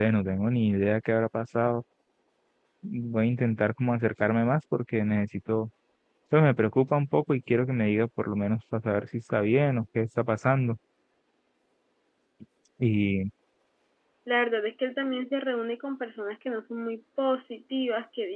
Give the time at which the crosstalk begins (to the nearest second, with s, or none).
none